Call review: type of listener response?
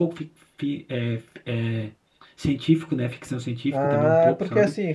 taking over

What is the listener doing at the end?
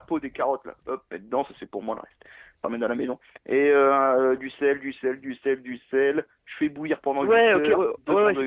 taking over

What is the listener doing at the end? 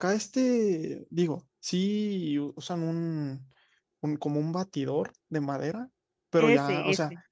listening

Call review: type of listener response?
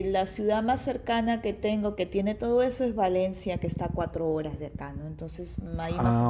listening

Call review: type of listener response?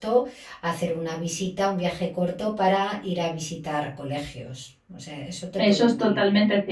taking over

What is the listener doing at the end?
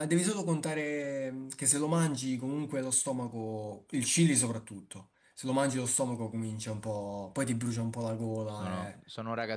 taking over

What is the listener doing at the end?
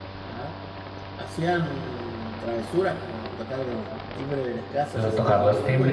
taking over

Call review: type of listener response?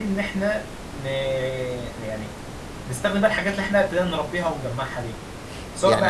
taking over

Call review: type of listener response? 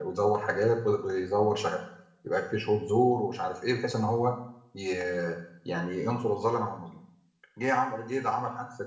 listening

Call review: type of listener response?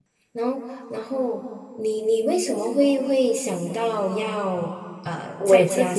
taking over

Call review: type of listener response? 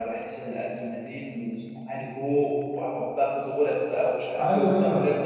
taking over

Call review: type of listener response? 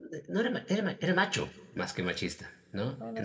listening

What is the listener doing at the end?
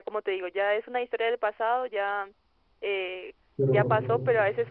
listening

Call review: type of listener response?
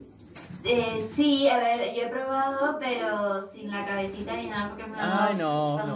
taking over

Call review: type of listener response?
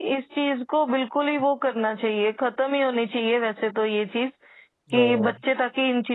listening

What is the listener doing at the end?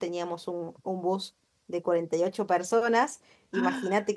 listening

